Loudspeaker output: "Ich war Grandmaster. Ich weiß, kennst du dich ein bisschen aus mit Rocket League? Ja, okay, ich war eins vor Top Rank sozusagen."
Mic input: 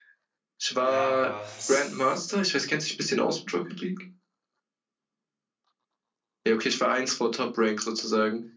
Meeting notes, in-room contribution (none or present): present